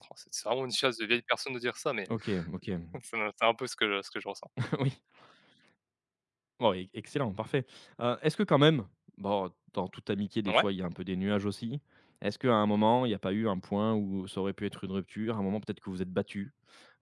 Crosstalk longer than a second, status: none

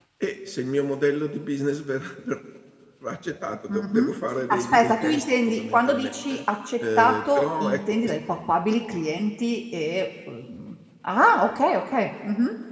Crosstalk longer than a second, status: present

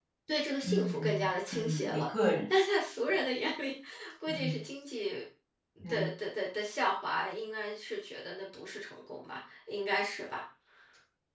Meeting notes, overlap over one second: present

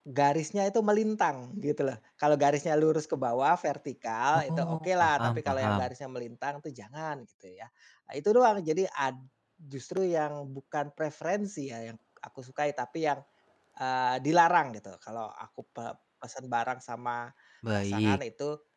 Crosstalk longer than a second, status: present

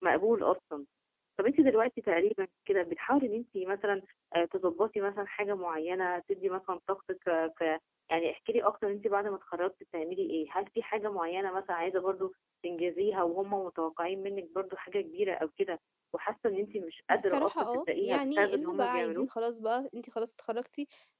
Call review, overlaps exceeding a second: present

